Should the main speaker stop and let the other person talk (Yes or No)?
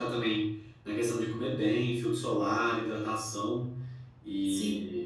Yes